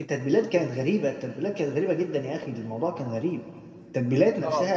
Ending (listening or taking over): listening